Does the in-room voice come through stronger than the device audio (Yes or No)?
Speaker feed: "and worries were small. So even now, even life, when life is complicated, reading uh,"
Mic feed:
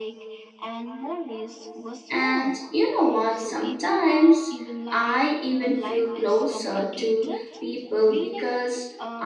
Yes